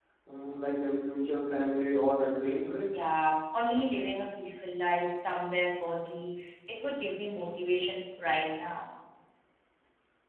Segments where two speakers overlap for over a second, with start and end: none

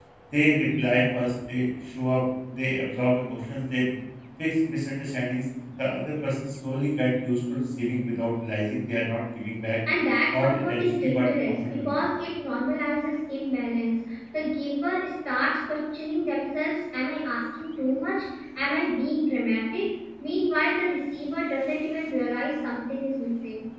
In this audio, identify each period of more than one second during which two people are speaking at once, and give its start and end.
10.3-12.0

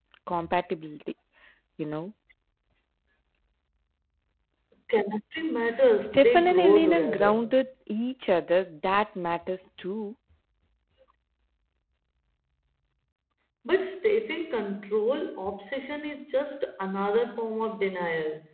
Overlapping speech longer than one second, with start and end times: 6.0-7.6

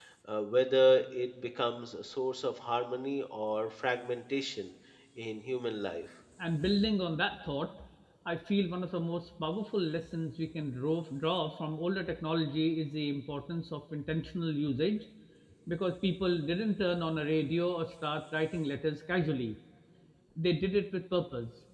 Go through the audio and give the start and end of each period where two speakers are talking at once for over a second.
none

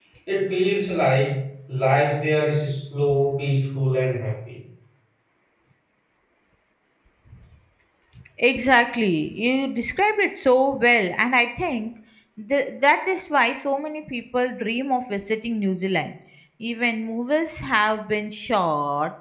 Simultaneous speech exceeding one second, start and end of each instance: none

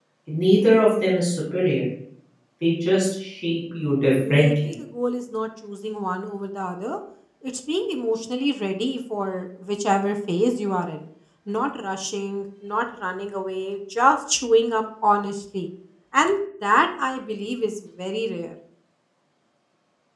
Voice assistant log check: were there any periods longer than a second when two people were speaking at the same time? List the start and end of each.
none

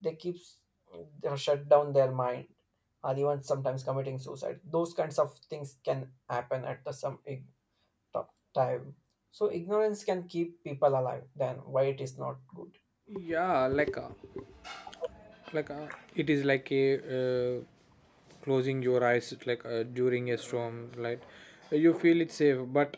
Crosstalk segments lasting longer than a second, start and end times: none

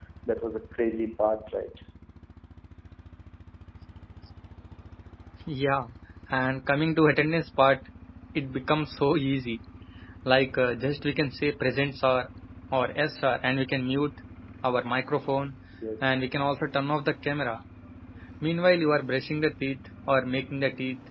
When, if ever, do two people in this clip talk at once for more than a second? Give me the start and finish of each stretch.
none

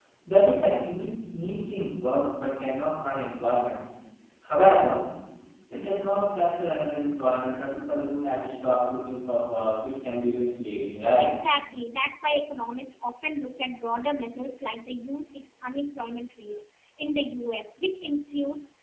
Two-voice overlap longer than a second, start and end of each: none

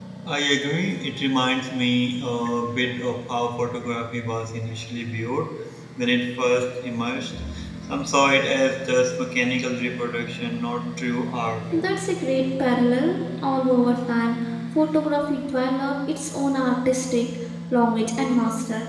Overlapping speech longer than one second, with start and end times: none

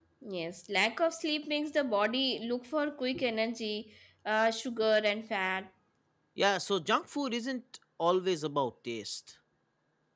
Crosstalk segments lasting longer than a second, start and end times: none

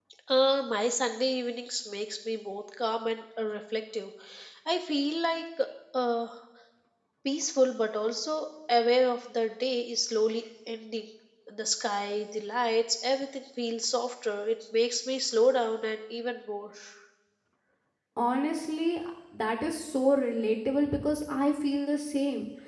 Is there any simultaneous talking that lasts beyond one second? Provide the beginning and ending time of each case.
none

